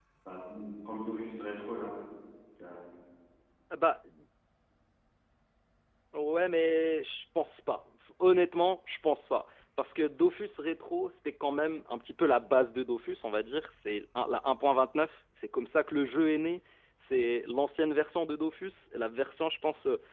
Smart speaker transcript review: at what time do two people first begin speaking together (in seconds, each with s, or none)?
none